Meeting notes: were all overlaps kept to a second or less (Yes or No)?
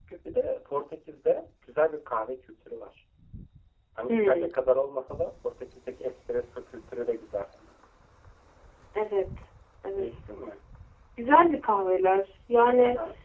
Yes